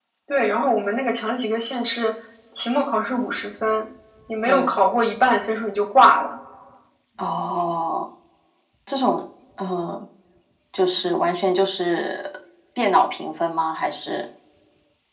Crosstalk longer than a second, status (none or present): none